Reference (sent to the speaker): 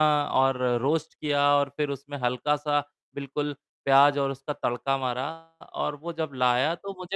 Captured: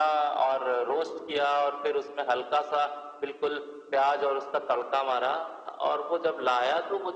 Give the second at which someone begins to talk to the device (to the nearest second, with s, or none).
none